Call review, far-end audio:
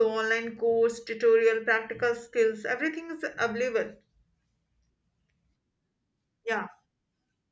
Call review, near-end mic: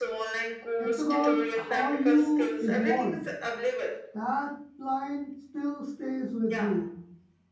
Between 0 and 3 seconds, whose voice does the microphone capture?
both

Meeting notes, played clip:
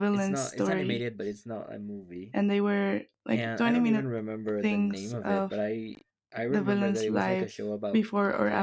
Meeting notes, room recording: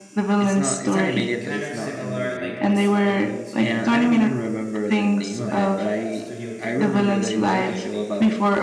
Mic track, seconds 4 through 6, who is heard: both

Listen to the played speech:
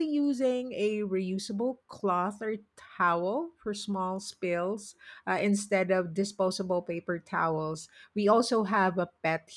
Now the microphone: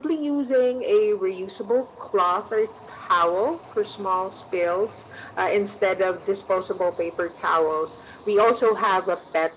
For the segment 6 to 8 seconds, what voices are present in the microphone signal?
echo only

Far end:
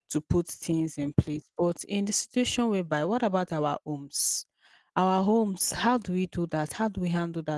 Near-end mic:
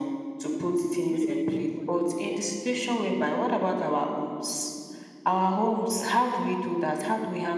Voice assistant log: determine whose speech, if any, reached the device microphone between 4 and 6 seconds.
echo only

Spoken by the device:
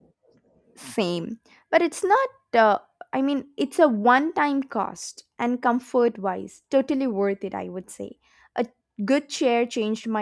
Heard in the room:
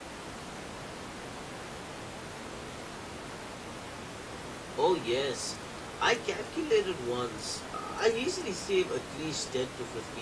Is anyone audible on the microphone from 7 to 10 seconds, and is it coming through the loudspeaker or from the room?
user only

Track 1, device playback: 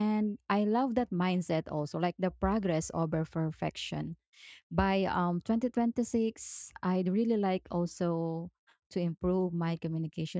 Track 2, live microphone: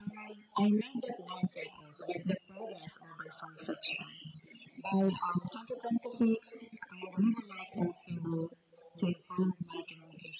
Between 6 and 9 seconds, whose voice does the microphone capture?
echo only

